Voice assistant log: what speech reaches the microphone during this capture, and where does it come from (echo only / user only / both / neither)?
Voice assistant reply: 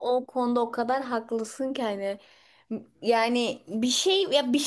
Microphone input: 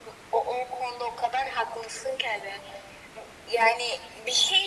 echo only